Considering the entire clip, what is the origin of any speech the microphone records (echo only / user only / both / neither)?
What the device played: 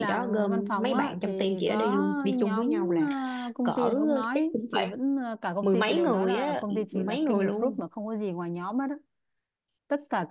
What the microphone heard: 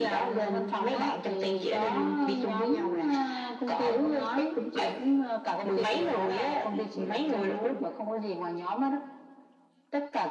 echo only